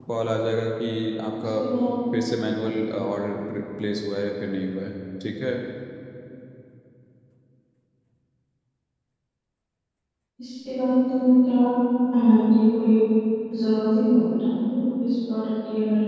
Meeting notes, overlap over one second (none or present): none